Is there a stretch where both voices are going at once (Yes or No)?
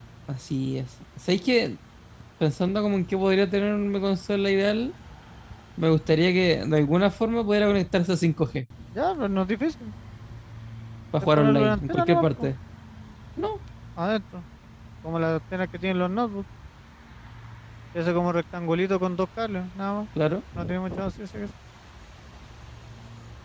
Yes